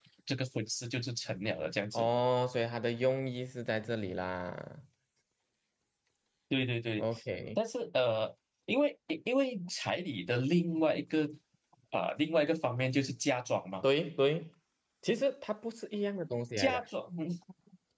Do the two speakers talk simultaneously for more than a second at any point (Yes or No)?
No